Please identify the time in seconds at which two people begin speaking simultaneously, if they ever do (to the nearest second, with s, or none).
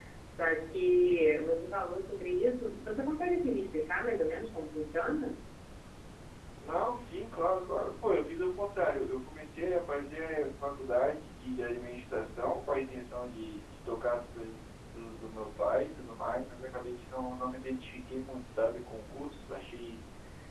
none